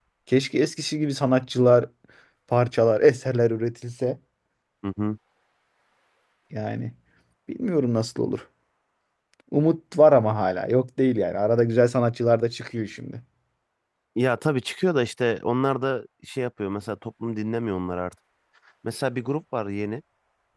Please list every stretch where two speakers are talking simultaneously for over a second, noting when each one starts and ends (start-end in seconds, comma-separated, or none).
none